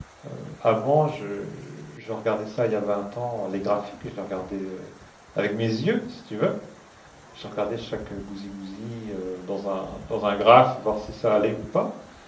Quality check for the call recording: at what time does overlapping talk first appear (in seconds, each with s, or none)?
none